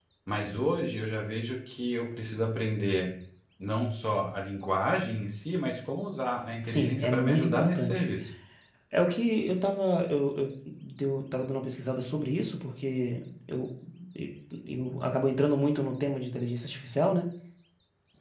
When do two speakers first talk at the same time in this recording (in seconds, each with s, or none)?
6.6 s